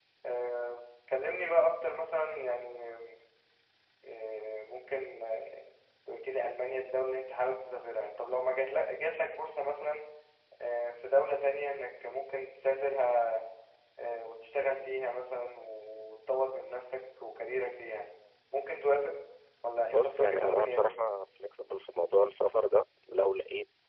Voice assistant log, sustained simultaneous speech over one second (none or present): present